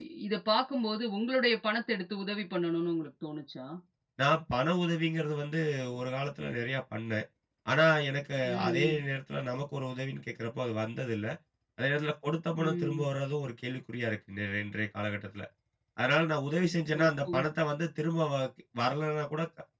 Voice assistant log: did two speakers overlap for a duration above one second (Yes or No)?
No